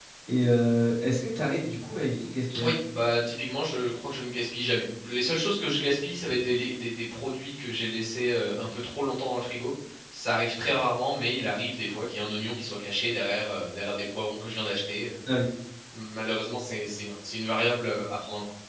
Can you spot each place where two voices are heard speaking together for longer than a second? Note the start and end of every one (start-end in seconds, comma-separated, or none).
none